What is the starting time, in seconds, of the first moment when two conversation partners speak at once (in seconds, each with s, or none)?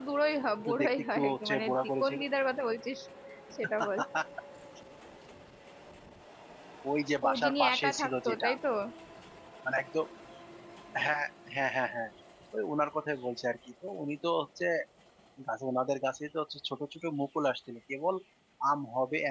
0.6 s